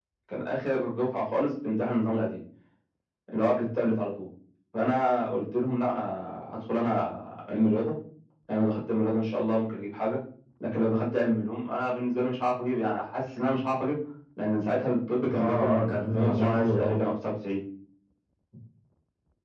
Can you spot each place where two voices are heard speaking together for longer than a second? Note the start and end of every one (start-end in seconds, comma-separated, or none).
15.4-16.9